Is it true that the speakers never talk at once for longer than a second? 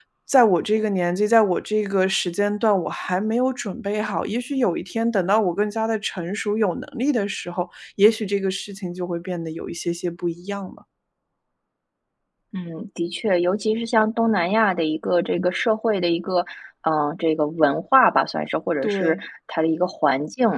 Yes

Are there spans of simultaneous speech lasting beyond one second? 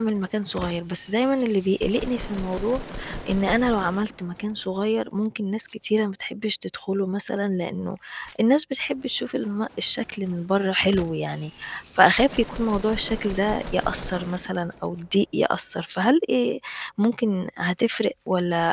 No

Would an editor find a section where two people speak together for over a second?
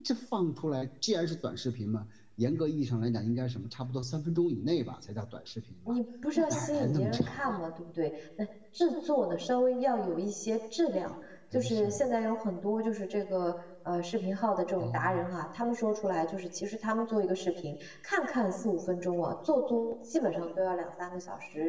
Yes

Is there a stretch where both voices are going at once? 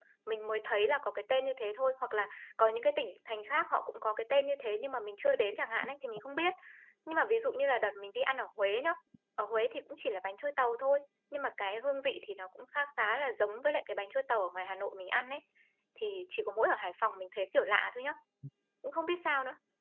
No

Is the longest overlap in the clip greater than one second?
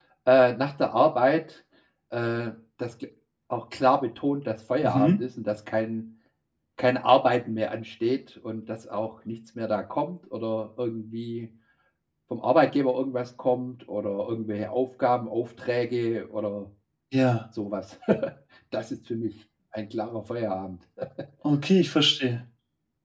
No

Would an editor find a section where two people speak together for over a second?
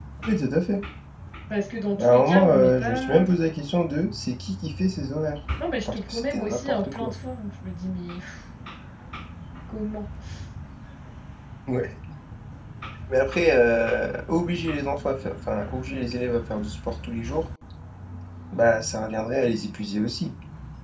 Yes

